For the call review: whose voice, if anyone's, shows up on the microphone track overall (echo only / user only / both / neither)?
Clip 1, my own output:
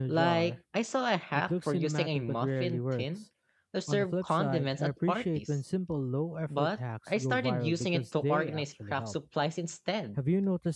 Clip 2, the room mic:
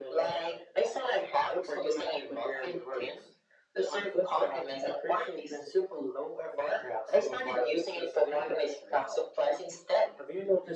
echo only